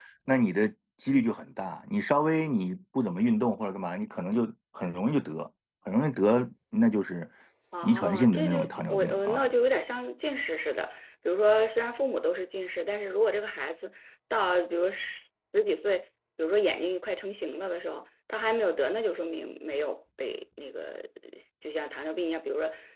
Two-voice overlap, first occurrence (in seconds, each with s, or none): 7.8 s